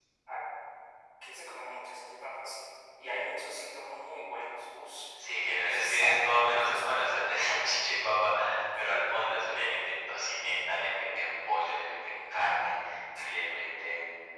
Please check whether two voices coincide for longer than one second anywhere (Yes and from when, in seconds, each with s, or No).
Yes, from 5.1 s